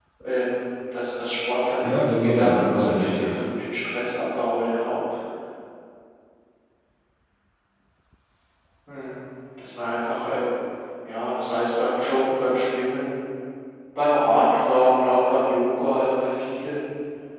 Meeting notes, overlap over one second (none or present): present